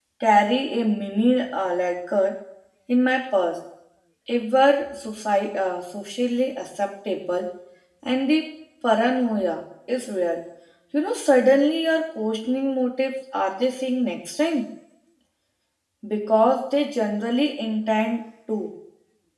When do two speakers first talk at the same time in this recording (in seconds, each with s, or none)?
none